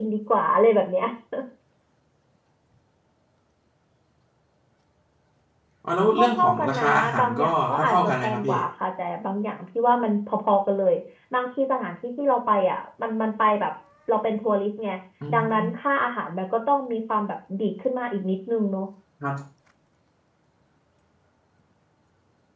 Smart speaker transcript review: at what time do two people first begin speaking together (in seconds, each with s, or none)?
6.2 s